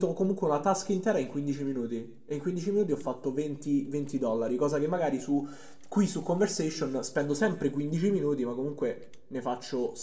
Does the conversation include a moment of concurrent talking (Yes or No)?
No